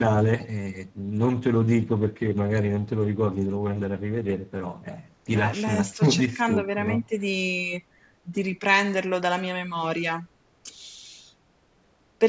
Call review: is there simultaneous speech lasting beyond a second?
Yes, from 5.3 s

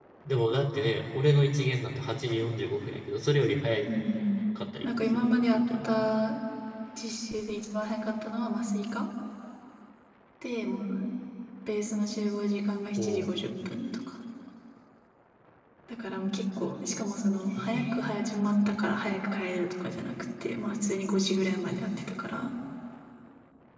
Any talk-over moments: Yes, from 4.8 s

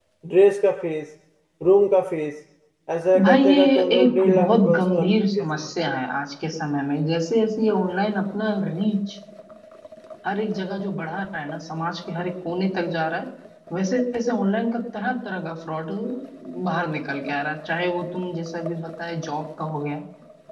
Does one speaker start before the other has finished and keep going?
Yes, from 3.2 s

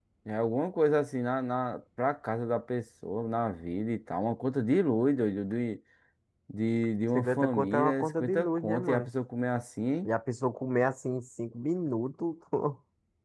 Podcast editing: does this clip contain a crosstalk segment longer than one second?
Yes, from 7.2 s

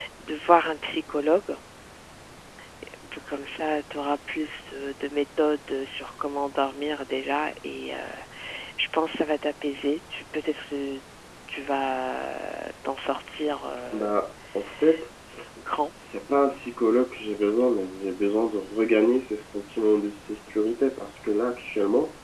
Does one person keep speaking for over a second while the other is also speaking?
No

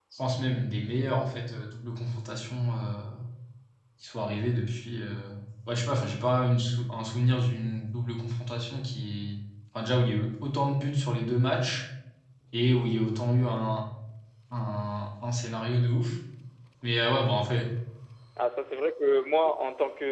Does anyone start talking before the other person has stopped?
No

